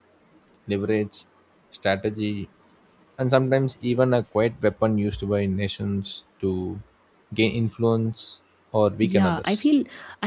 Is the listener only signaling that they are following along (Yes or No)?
No